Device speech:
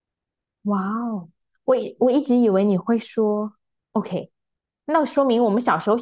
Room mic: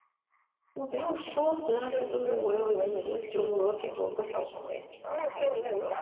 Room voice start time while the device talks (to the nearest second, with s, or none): 1 s